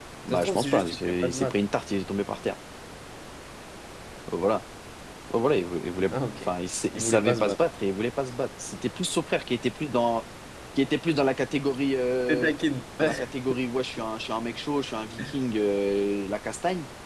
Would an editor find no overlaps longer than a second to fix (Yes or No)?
No